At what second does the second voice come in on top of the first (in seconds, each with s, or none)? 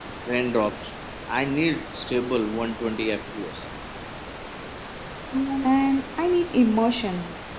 none